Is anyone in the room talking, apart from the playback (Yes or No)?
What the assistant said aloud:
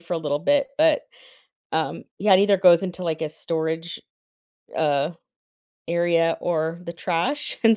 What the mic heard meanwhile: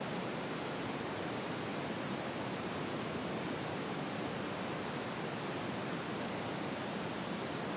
No